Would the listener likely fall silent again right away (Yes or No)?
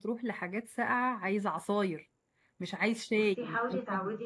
No